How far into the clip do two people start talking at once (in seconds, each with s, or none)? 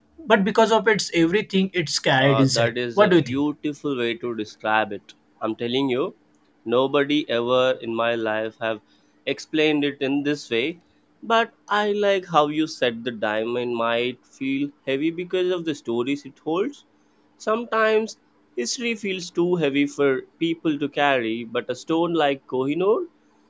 2.2 s